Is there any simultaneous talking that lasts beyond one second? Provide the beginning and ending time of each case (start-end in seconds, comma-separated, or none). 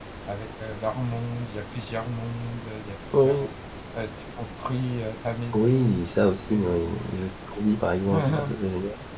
5.5-6.8